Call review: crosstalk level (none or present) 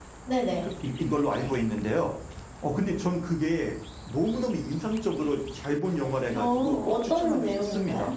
present